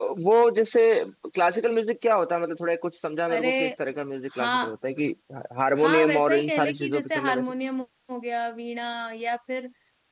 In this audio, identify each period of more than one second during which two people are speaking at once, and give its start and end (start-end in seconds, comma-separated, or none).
5.8-7.5